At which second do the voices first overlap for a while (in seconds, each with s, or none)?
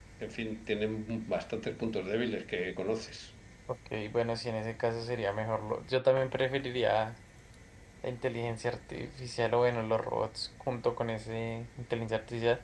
none